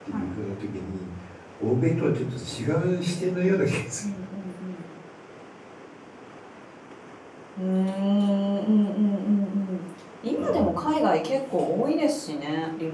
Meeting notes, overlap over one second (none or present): none